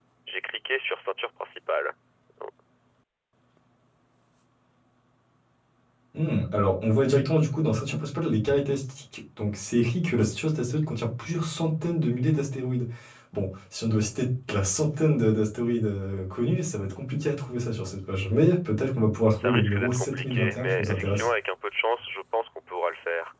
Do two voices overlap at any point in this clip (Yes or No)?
Yes